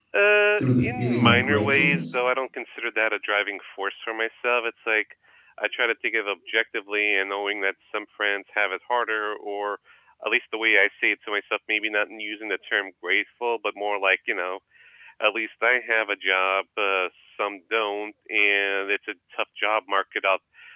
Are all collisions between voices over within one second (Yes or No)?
No